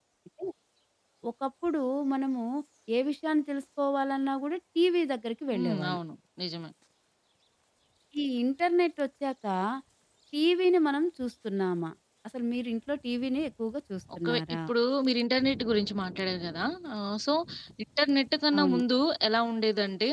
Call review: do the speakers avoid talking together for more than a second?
Yes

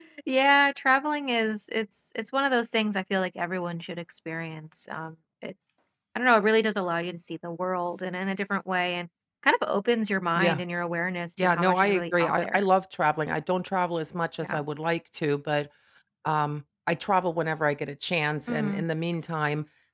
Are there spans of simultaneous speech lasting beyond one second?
Yes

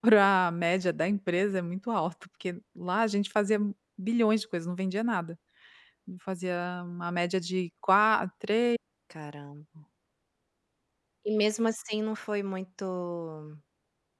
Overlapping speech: No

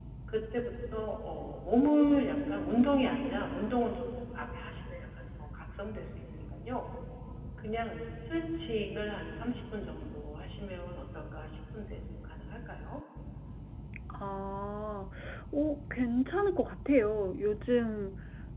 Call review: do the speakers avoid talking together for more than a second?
Yes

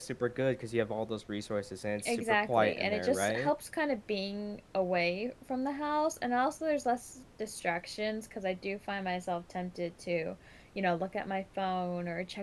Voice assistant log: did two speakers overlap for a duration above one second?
Yes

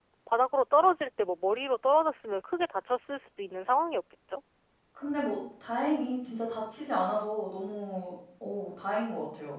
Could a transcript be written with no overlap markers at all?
Yes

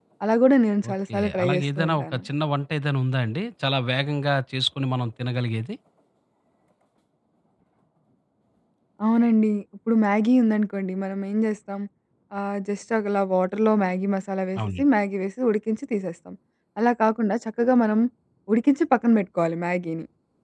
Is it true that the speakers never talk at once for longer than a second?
No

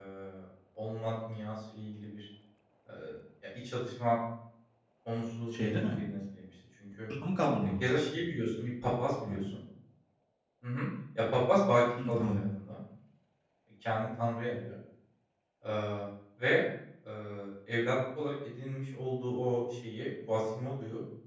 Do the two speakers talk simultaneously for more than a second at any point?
No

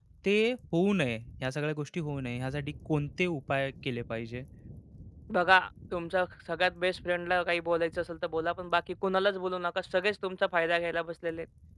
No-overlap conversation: Yes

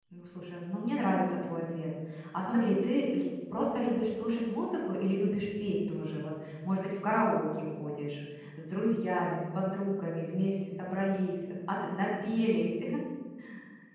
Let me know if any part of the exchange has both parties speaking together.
No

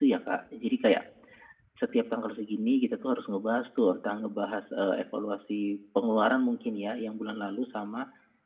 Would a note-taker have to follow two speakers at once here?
No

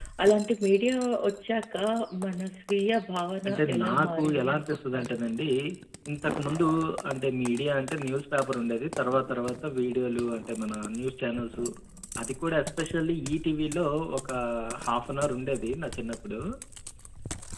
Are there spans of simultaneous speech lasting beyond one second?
Yes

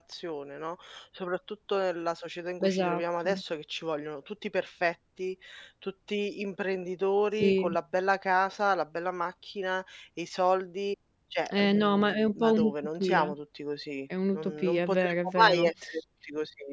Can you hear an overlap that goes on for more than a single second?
Yes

